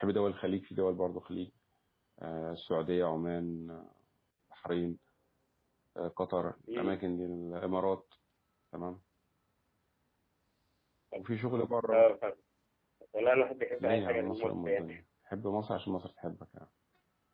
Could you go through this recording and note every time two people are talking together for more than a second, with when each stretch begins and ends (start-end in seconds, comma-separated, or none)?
13.8-15.0